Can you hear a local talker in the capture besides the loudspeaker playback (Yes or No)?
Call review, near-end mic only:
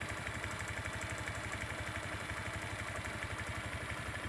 No